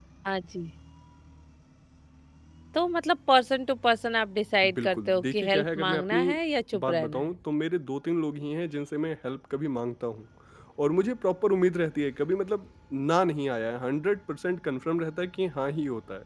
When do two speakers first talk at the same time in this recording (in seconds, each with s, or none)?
4.7 s